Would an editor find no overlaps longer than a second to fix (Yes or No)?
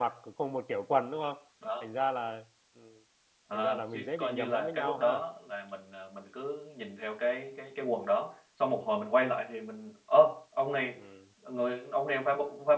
No